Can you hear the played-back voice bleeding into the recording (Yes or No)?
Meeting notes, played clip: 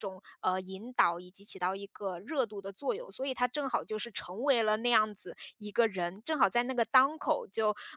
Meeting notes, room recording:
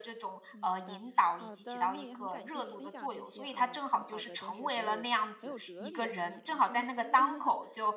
Yes